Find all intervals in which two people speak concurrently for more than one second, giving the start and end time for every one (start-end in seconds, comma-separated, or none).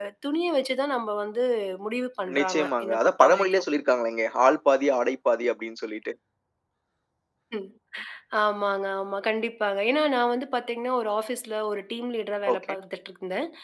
2.4-3.6